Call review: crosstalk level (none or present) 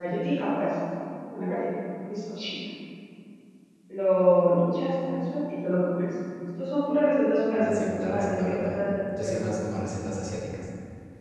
present